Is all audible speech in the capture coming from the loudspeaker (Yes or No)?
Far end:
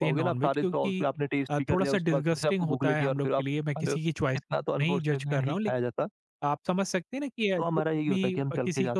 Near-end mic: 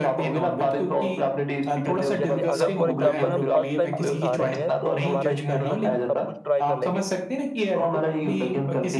No